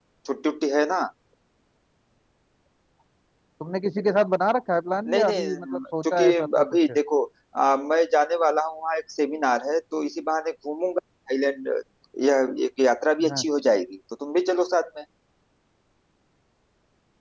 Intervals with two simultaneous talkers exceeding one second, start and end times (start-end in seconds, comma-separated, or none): 5.1-6.9